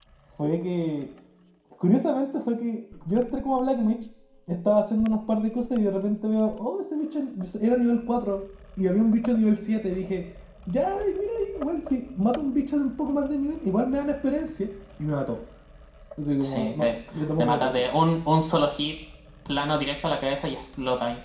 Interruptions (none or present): present